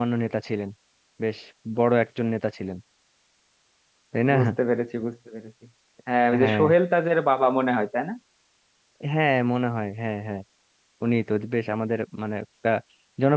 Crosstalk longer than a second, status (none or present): none